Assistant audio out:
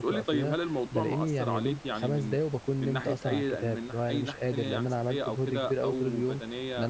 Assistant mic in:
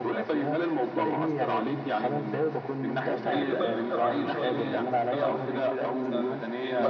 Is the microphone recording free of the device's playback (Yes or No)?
No